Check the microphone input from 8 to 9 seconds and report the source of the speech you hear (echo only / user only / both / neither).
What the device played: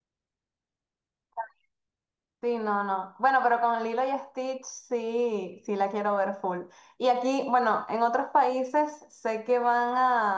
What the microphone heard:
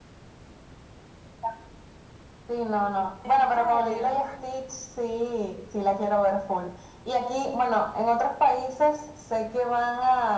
echo only